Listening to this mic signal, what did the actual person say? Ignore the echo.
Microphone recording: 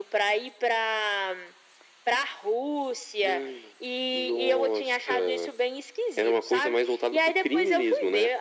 none

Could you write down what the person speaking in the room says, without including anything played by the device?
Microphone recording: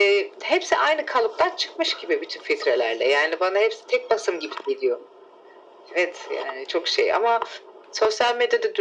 none

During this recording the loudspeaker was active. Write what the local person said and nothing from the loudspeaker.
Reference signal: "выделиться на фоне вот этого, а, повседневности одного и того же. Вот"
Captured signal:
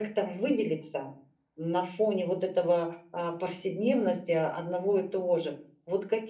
none

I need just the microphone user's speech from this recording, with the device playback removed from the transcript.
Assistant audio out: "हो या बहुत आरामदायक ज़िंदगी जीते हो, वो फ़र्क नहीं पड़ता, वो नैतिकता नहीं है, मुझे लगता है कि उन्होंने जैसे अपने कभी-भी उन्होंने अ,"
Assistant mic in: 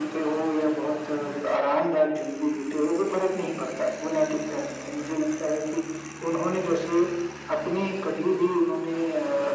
none

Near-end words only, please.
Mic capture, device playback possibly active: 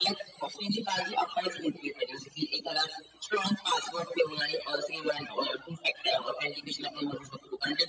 none

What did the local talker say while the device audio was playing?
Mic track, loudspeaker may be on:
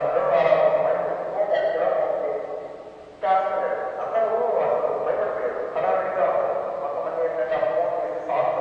none

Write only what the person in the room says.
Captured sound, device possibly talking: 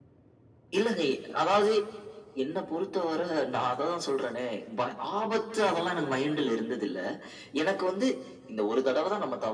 none

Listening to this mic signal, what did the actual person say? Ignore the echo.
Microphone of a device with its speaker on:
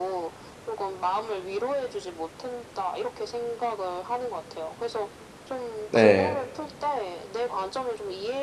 네.

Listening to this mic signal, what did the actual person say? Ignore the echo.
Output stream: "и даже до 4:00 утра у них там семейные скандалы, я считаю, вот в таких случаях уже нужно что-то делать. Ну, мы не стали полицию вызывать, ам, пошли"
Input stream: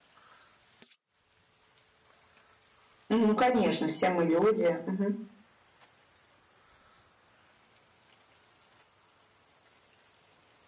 Ну конечно, все мы люди. Мгм.

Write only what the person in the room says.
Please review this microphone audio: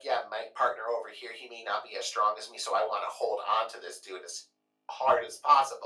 none

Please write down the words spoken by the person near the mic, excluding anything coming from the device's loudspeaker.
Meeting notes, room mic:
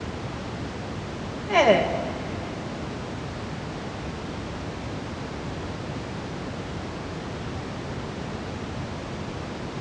É.

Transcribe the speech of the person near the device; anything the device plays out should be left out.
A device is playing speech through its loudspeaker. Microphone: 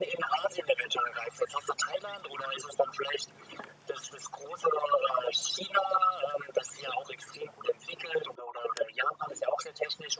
none

